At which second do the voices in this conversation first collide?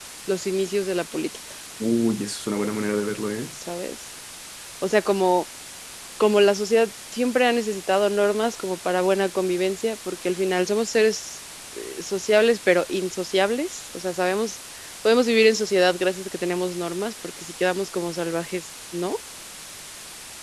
none

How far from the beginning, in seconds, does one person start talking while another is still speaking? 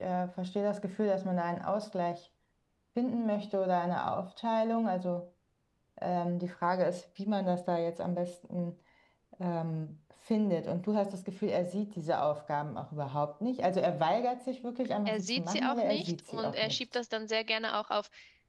15.1 s

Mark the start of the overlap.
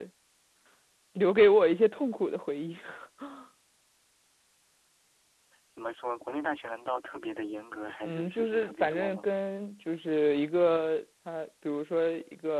8.0 s

